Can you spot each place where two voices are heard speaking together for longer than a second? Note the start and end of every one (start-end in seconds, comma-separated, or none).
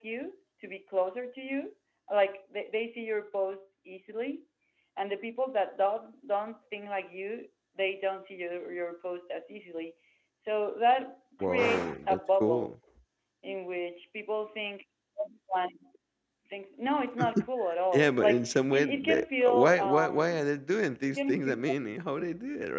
11.4-12.7, 17.9-20.4